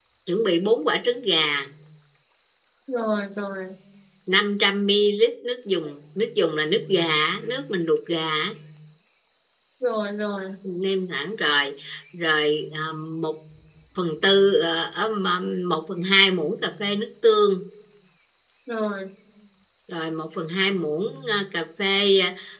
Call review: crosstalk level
none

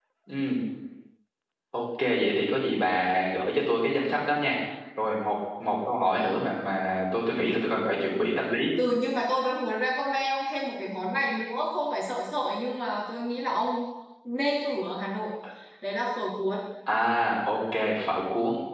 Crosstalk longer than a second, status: none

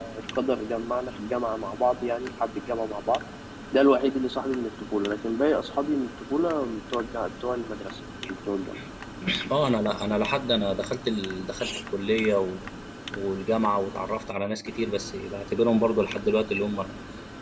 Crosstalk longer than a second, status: none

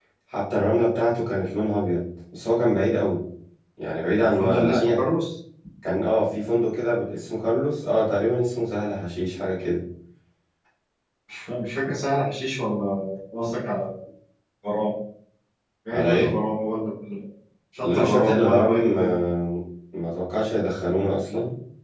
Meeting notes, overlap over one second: present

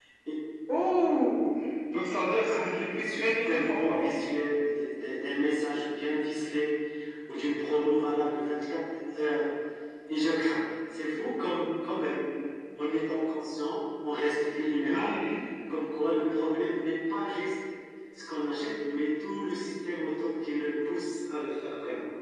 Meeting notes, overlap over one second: present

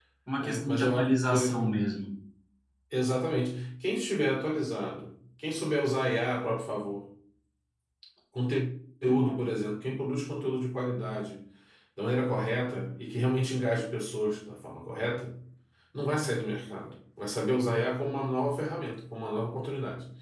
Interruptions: present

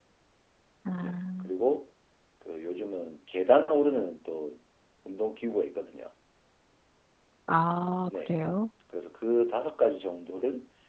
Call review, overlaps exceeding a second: none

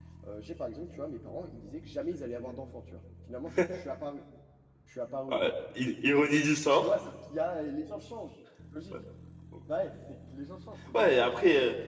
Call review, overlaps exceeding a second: none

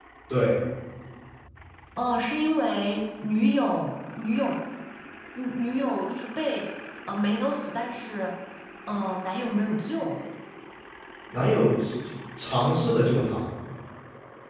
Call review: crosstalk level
none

